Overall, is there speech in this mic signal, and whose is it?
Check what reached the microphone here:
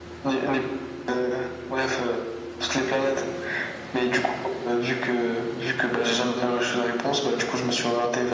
echo only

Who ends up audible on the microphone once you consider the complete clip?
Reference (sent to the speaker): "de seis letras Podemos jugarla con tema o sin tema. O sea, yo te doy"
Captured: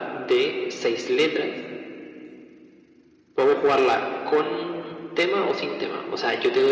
echo only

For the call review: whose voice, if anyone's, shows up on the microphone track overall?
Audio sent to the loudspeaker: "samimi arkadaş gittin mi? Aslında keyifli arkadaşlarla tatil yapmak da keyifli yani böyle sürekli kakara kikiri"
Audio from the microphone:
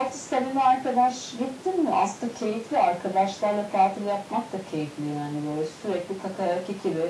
echo only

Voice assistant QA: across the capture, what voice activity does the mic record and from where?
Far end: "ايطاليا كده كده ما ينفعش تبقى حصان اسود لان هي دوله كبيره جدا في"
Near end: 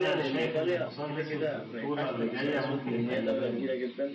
both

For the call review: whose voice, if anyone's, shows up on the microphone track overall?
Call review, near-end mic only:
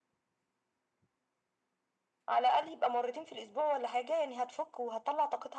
echo only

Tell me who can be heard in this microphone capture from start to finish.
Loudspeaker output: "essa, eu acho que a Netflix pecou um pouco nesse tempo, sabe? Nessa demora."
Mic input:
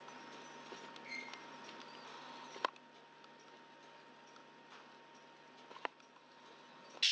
neither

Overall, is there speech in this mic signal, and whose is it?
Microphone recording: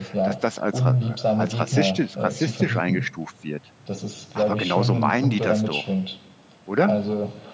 both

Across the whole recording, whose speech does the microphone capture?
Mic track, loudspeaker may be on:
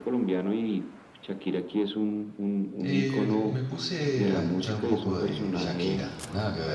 both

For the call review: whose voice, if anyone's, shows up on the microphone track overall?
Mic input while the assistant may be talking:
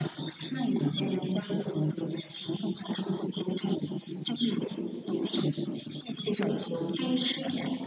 echo only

